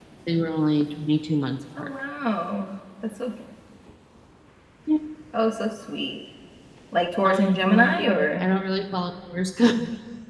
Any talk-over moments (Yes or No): Yes